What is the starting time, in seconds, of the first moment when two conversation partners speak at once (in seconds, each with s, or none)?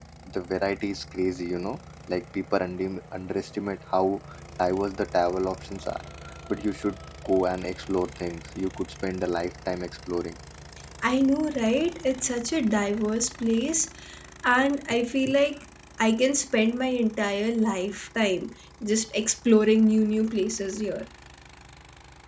none